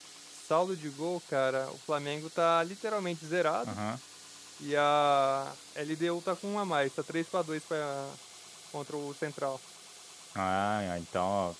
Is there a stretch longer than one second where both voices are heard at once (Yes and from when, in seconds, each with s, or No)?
No